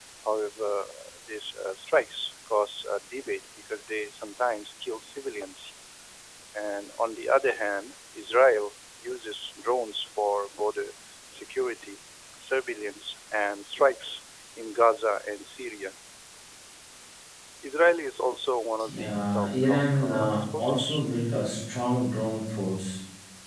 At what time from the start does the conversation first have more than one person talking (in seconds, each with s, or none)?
18.8 s